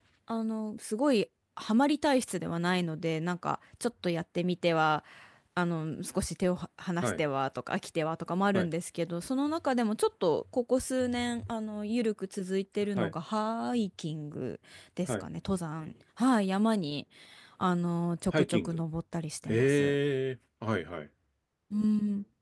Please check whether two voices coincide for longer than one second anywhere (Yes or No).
No